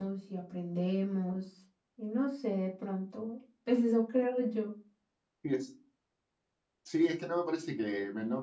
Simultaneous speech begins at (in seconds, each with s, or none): none